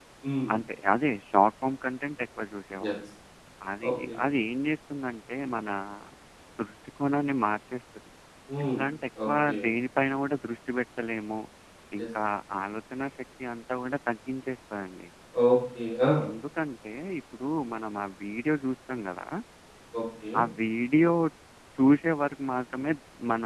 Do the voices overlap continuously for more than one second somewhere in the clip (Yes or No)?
No